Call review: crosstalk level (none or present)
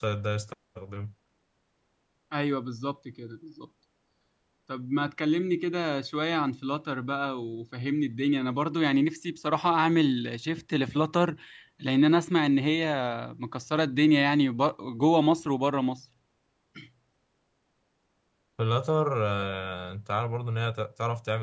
none